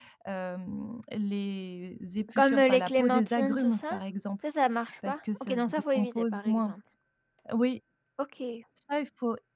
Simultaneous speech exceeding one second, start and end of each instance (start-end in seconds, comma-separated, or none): 2.3-4.0, 5.0-6.7